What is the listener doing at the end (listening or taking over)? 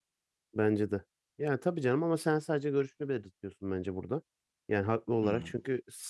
listening